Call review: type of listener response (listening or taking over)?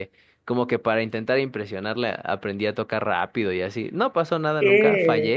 taking over